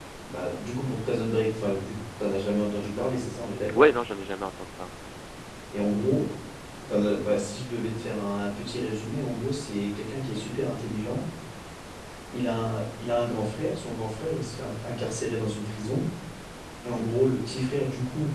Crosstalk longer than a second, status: none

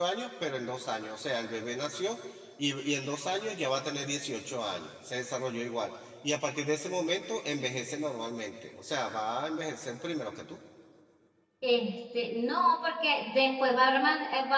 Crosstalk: none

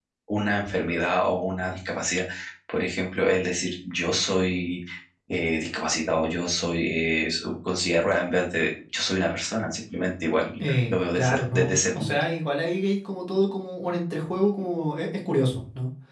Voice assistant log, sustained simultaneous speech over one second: present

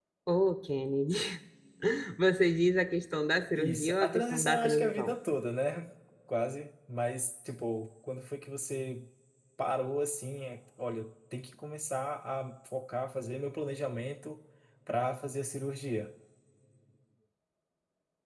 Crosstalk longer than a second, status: present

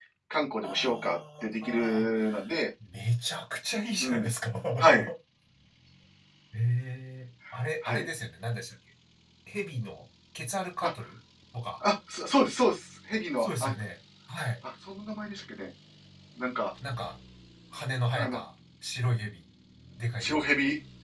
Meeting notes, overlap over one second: present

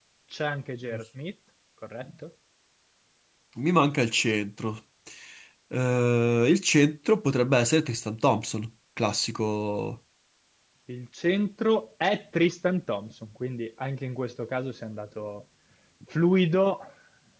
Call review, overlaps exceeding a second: none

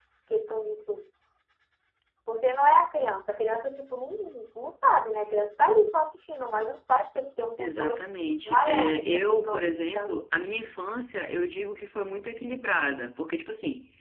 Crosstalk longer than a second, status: present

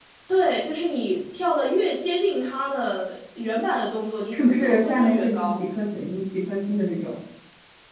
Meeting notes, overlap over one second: present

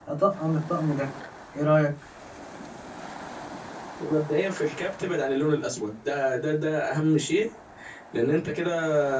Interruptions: none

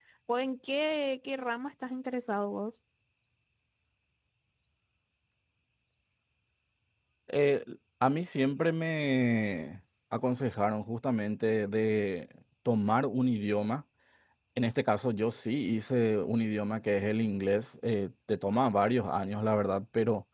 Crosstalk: none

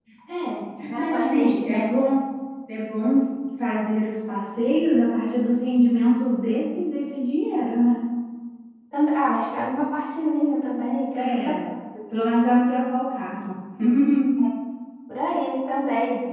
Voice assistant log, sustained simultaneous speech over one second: present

